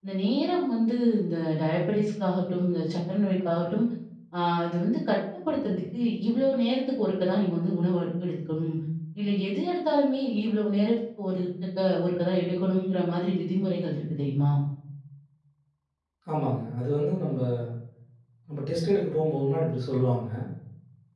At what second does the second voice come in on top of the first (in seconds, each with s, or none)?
none